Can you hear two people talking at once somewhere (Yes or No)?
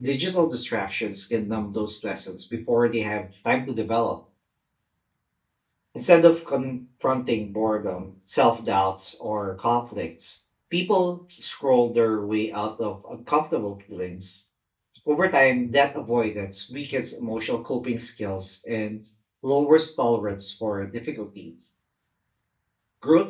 No